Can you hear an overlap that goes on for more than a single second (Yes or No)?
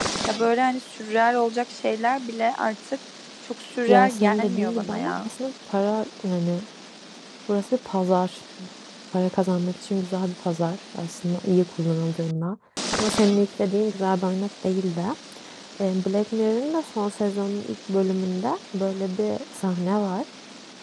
Yes